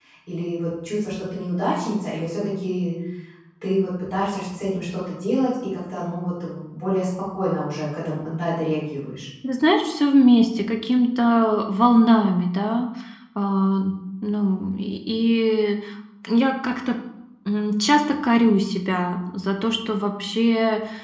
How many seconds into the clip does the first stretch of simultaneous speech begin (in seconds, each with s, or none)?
none